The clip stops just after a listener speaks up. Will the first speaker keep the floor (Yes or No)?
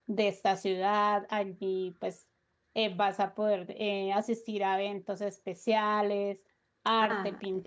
No